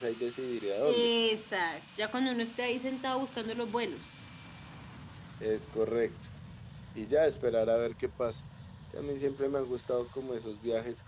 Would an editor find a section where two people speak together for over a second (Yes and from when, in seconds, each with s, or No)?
No